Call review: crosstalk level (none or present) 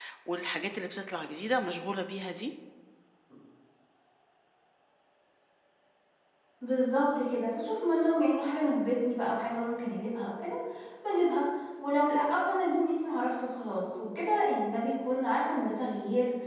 none